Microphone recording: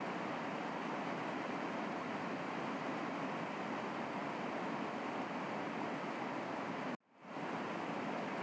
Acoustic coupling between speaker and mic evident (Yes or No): No